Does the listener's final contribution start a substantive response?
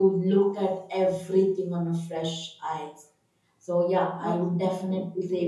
No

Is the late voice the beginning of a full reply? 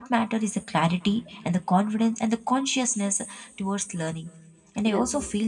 No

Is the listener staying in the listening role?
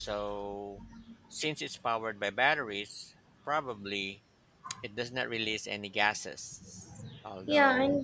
No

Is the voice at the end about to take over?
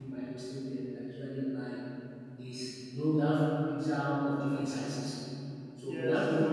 No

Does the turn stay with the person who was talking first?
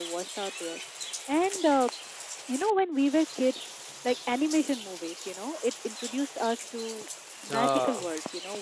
Yes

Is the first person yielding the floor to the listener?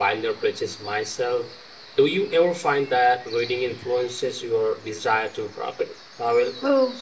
Yes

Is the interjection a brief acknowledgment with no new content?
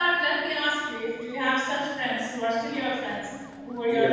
No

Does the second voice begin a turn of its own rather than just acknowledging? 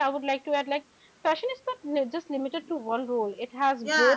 Yes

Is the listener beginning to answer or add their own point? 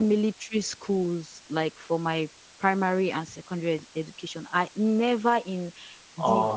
No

